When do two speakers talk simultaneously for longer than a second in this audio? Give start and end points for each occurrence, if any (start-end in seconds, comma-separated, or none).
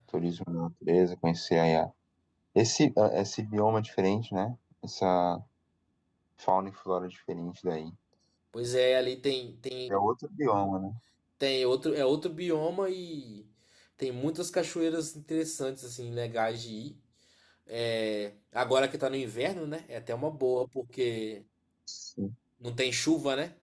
none